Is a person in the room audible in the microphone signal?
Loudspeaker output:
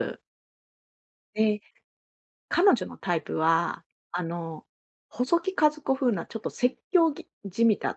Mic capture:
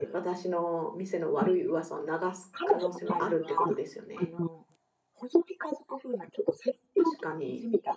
Yes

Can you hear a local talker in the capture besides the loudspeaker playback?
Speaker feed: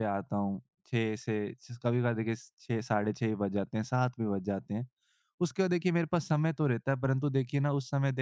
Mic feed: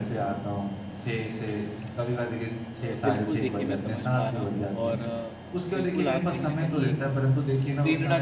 Yes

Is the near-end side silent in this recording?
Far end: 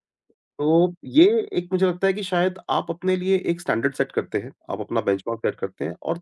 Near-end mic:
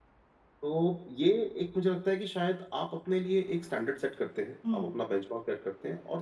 No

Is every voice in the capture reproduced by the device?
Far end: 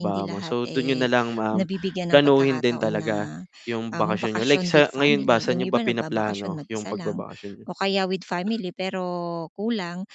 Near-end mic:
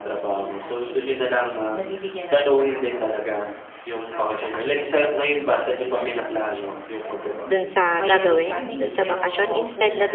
No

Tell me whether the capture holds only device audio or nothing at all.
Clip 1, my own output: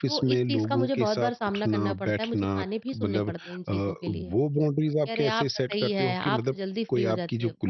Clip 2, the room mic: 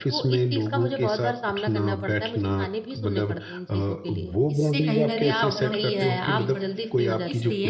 No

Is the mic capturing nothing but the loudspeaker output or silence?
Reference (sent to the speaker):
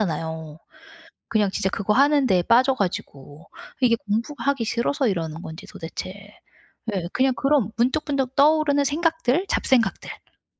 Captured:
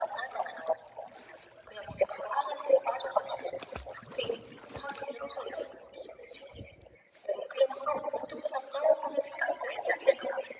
Yes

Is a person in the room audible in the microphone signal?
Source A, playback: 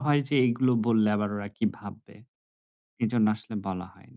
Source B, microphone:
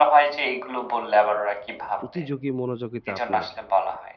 Yes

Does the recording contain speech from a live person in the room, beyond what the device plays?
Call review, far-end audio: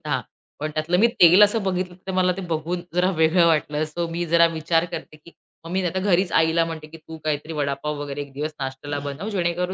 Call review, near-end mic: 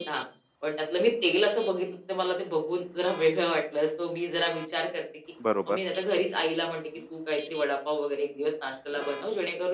Yes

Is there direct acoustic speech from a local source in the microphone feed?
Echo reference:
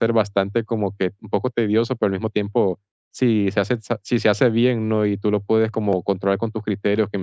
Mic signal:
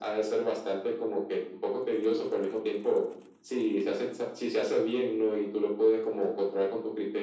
No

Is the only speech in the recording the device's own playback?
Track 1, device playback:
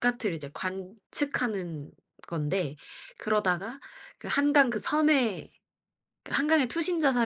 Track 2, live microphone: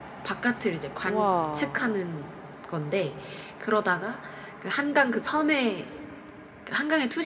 No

